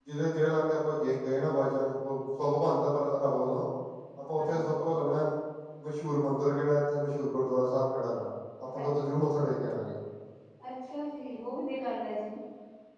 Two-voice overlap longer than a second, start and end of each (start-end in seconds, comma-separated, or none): none